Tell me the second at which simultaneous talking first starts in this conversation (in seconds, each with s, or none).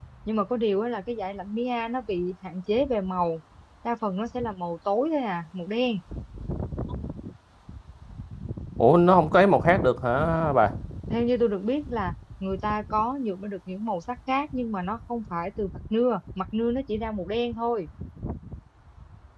none